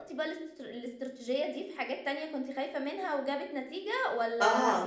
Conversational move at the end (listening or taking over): taking over